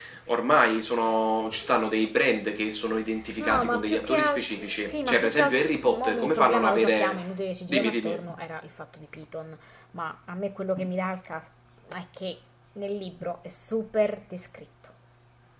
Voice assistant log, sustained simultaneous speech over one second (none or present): present